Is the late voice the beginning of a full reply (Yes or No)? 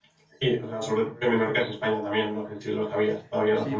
Yes